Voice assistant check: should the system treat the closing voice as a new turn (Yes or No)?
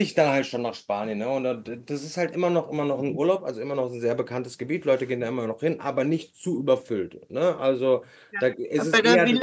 Yes